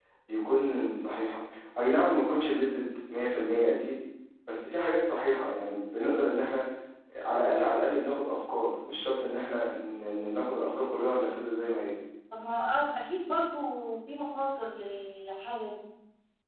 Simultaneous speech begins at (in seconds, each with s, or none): none